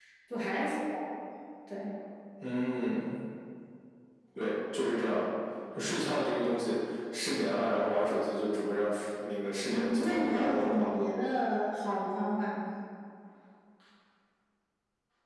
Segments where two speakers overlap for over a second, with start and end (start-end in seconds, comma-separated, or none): 9.6-10.9